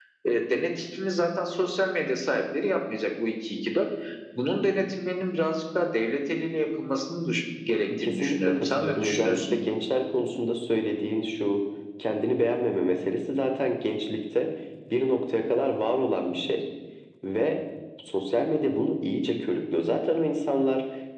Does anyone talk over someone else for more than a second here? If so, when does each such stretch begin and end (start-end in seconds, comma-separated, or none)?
7.8-9.6